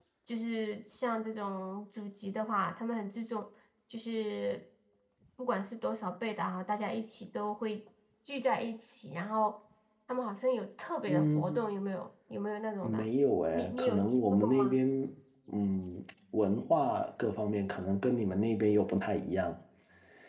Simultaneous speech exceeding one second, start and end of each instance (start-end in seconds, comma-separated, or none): 13.6-14.8